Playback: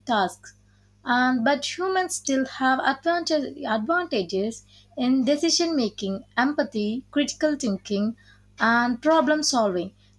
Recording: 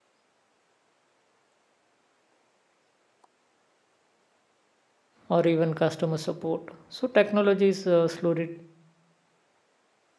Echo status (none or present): none